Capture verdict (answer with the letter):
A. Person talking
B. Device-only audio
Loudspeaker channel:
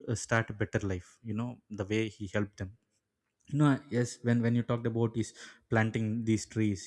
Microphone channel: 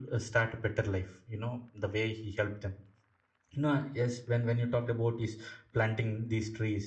B